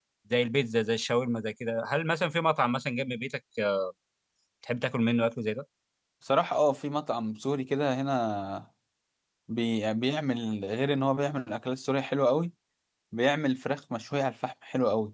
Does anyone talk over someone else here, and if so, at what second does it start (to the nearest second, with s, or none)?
none